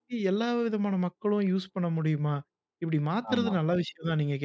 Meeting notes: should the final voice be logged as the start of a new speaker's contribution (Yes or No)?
No